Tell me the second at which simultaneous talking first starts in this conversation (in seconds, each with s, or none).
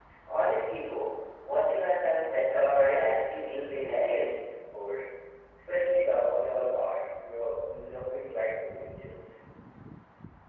2.5 s